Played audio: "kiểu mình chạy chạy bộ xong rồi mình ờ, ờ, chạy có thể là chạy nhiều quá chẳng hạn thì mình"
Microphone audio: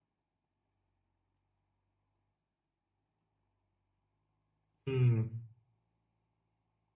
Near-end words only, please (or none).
Ừm,